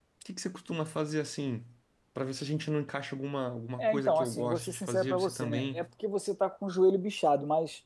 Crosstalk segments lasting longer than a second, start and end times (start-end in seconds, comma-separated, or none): 3.8-5.8